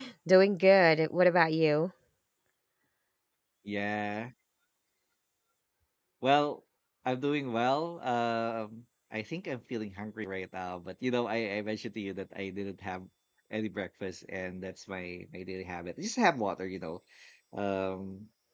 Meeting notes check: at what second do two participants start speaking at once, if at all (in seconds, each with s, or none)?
none